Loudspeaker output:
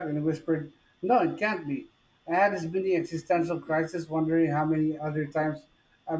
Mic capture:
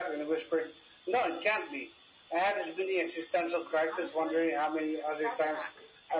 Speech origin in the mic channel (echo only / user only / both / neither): both